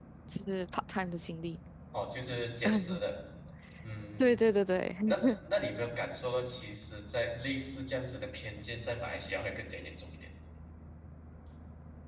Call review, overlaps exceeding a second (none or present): none